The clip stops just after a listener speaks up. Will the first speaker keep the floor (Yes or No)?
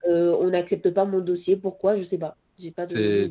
No